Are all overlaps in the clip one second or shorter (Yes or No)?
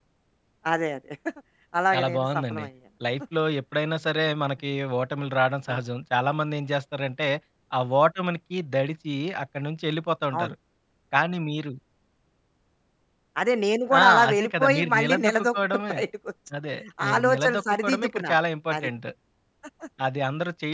No